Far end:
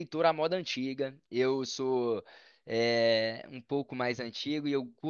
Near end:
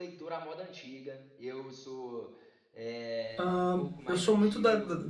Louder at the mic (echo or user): user